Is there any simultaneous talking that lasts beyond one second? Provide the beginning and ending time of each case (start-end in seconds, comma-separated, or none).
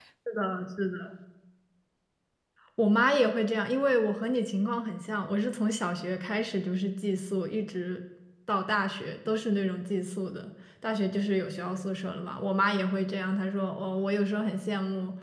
none